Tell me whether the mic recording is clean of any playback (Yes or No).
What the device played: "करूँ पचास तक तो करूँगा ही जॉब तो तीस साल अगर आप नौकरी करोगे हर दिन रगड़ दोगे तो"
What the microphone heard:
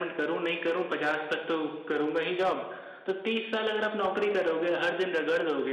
No